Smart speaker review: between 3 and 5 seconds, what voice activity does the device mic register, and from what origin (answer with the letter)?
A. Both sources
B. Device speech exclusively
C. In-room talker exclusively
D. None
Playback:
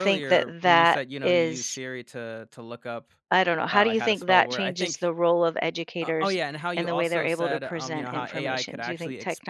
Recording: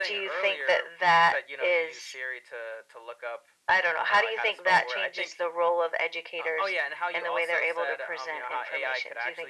B